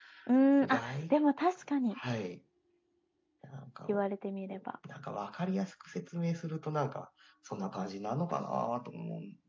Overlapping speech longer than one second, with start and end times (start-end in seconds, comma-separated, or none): none